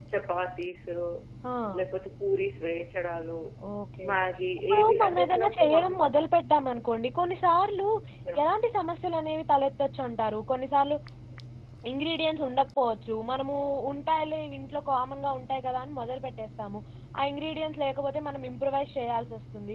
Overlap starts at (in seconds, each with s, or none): 4.7 s